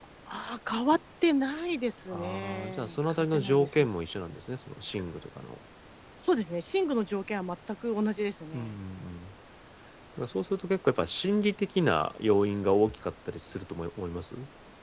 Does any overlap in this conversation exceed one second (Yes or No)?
Yes